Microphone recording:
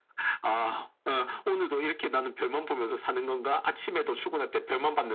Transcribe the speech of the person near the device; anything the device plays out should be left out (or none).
none